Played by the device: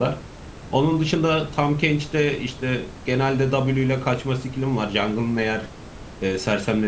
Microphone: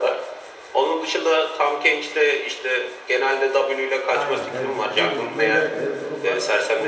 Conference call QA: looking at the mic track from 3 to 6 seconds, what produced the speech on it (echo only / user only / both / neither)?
both